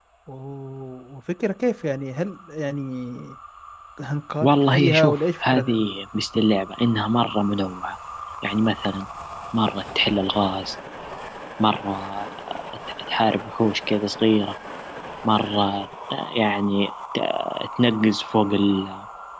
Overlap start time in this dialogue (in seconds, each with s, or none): 4.4 s